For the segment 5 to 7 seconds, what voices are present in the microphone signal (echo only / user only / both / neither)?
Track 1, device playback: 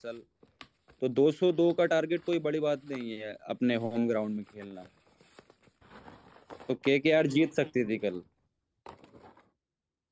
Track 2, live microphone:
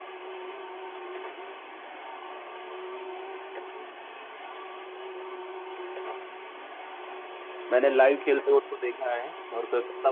neither